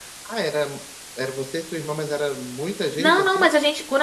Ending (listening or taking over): taking over